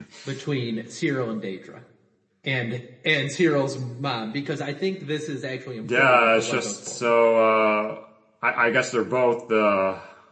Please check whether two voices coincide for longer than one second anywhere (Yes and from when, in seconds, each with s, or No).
Yes, from 5.8 s